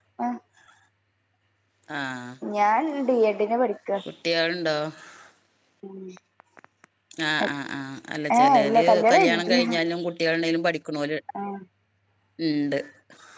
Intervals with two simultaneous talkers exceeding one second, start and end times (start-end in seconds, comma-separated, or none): 8.4-9.6